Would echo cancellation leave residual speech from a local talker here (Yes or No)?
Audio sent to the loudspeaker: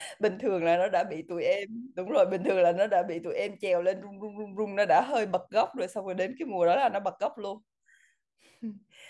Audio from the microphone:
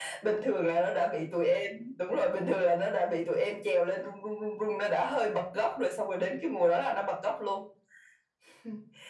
No